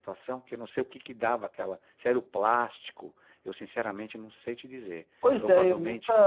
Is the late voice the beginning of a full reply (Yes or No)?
Yes